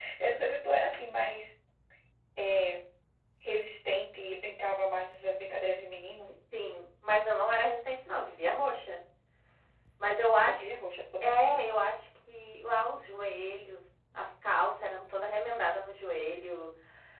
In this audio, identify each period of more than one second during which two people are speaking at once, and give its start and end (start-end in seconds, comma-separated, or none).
none